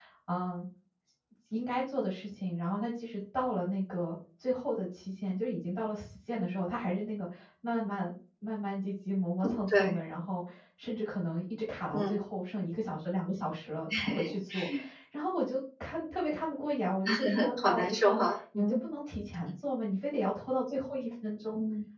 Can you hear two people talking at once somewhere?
Yes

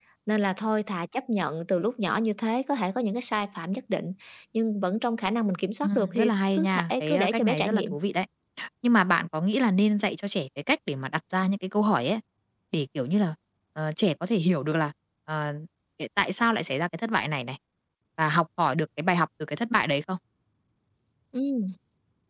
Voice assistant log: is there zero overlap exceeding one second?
No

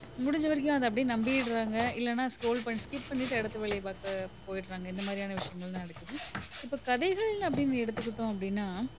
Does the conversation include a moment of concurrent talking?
No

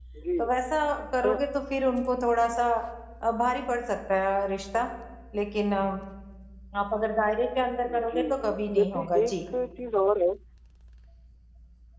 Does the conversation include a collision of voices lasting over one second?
Yes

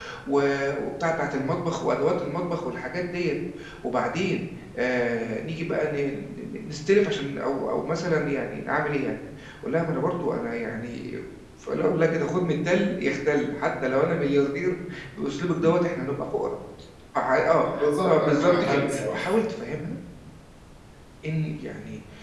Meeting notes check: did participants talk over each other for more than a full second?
Yes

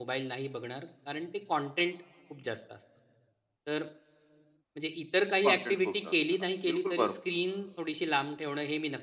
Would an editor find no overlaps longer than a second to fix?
No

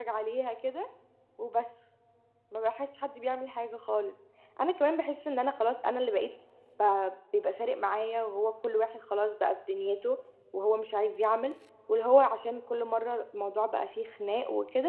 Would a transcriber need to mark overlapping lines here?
No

